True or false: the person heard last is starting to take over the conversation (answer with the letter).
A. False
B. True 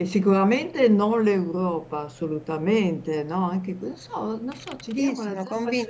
B